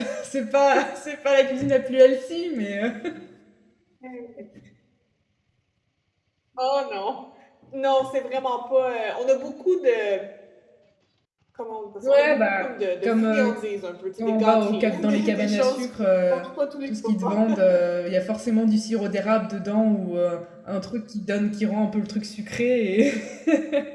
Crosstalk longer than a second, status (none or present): present